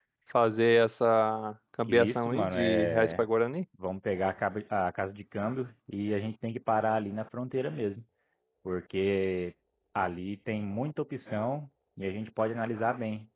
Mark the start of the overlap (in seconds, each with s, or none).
1.9 s